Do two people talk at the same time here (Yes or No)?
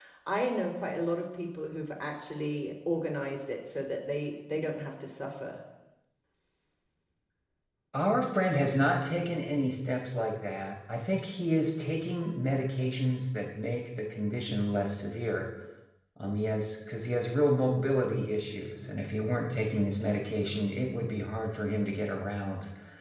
No